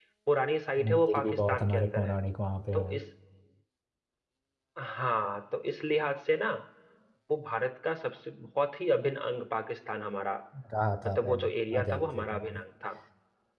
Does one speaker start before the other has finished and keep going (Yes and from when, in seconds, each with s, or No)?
Yes, from 0.8 s